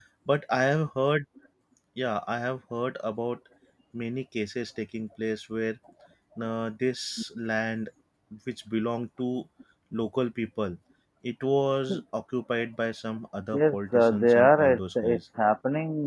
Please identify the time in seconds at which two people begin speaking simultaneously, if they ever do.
13.5 s

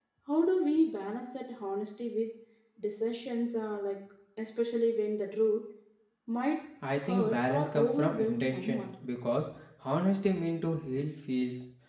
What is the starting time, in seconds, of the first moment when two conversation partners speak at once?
7.0 s

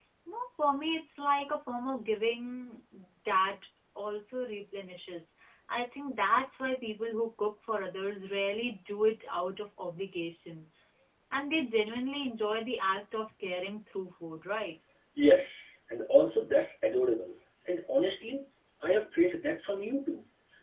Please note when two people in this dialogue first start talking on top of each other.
none

